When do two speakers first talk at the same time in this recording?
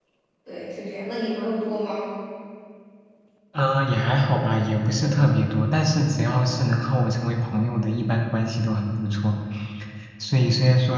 none

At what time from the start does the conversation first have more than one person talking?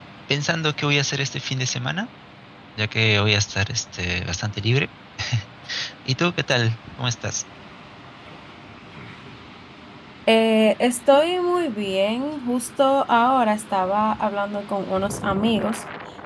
none

